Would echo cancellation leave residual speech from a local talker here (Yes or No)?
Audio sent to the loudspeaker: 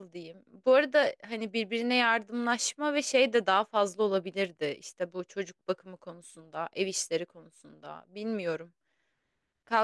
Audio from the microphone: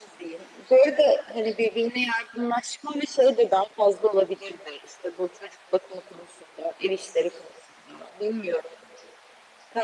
No